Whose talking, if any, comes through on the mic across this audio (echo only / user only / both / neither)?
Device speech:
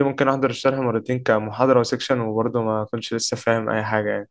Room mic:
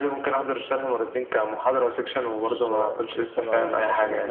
both